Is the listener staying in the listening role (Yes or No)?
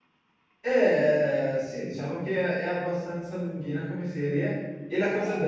Yes